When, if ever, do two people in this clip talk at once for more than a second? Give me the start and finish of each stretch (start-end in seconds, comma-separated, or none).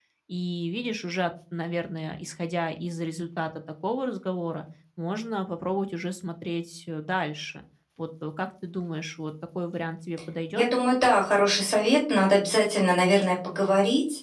none